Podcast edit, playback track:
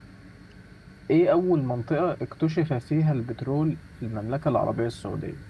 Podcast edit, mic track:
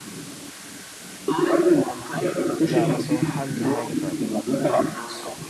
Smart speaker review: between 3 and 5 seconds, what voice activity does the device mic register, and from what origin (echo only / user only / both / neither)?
both